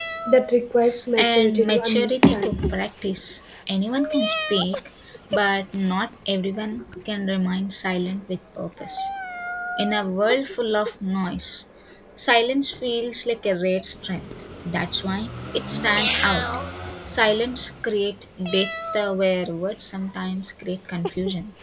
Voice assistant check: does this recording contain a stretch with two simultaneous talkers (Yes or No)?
Yes